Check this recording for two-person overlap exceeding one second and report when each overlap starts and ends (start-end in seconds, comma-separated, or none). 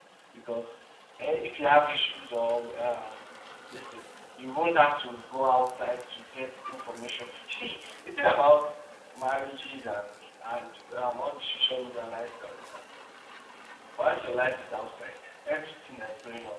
none